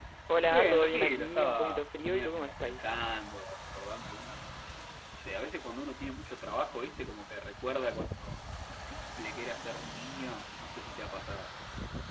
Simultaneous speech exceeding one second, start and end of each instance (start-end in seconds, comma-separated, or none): 0.5-2.8